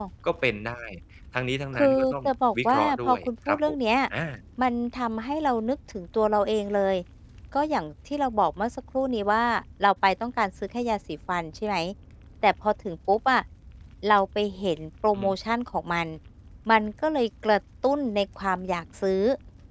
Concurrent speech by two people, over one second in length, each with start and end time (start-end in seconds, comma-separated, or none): 1.8-3.8